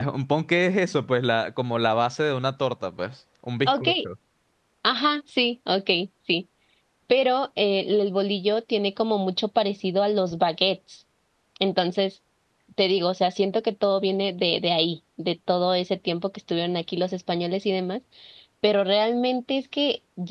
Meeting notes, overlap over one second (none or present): none